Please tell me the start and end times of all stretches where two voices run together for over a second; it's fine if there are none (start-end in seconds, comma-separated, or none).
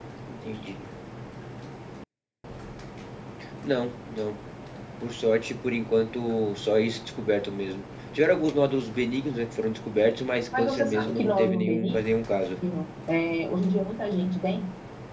10.5-12.0